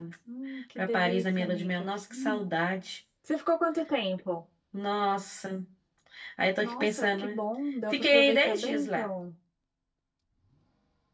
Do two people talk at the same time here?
Yes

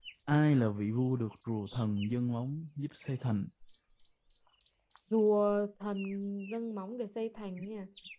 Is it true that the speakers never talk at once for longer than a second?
Yes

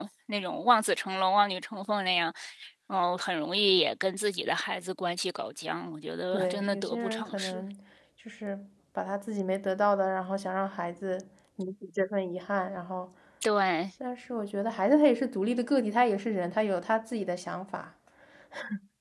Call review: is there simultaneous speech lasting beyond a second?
Yes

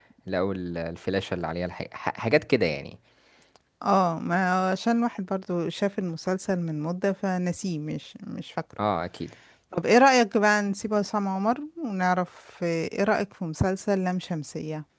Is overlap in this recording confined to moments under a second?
Yes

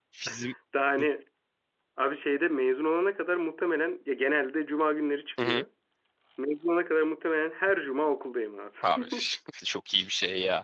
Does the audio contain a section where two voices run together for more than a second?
No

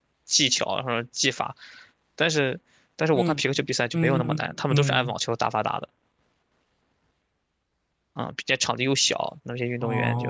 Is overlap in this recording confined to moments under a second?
No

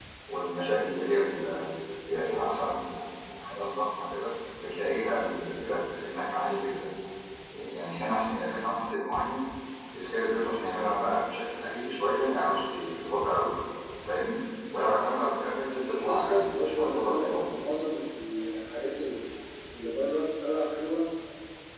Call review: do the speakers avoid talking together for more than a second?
No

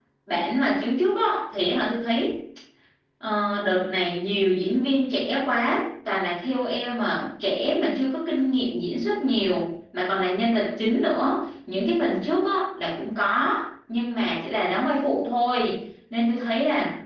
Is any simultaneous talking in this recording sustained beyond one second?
No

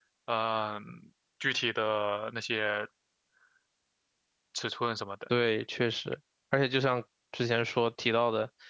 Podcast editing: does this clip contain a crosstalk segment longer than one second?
No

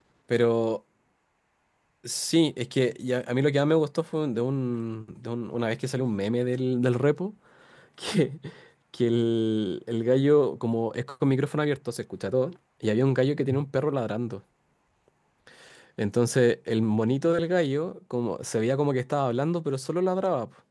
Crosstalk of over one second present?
No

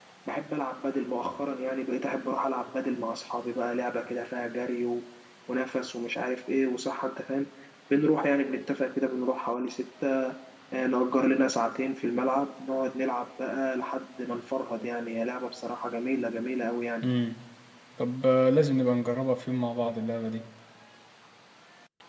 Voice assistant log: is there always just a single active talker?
Yes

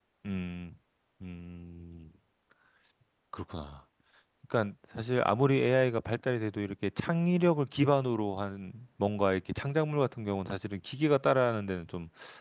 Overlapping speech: No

